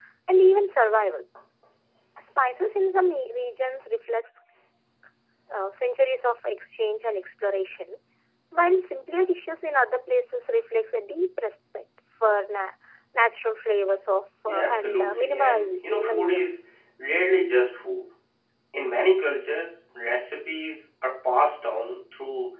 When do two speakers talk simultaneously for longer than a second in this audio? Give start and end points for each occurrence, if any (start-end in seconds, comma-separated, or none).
14.4-16.4